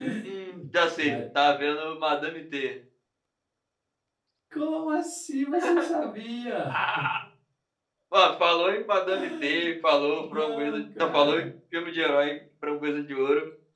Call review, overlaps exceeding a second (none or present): present